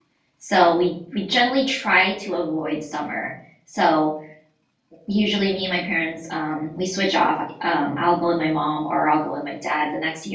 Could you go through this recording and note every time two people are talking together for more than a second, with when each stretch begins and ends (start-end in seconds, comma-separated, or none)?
none